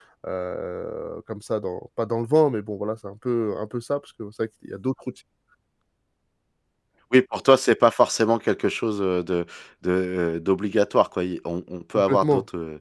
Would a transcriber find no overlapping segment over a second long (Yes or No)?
Yes